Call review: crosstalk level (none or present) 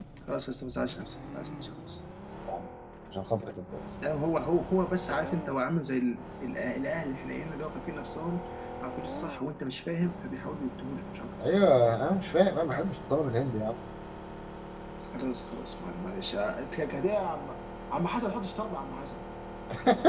none